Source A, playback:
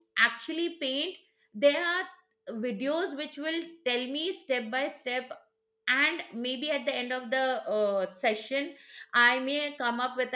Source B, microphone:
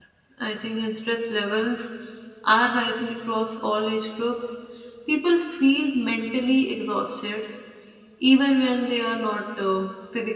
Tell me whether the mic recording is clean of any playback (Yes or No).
Yes